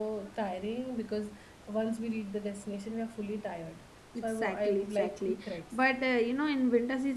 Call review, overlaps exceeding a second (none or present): present